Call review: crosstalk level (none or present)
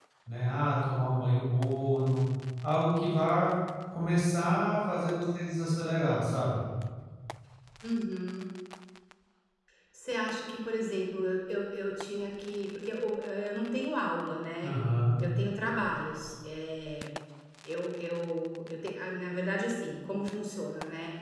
none